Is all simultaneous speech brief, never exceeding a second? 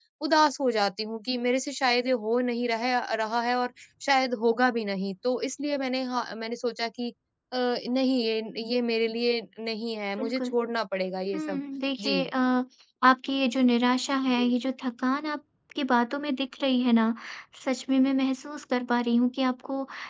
Yes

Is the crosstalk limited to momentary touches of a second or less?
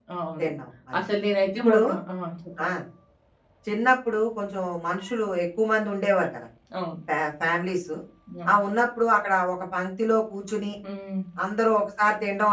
Yes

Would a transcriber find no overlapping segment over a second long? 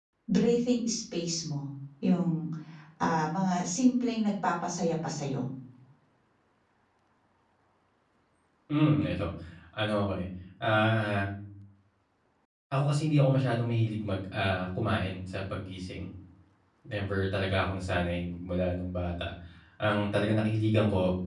Yes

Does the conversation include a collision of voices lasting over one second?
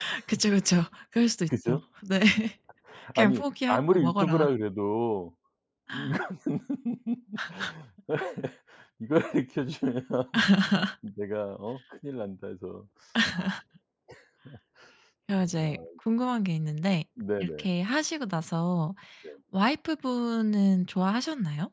Yes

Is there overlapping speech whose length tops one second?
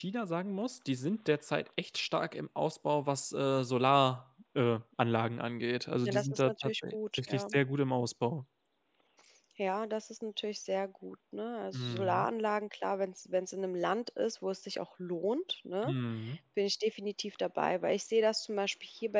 Yes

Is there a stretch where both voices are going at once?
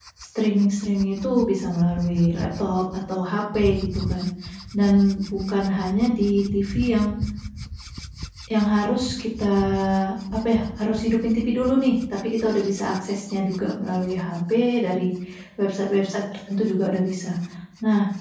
No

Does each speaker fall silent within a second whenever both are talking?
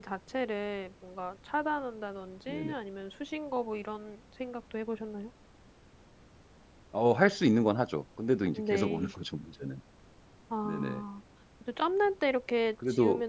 Yes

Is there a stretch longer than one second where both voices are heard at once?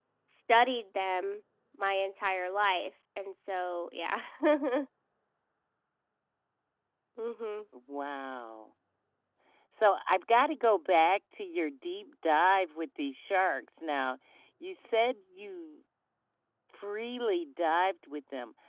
No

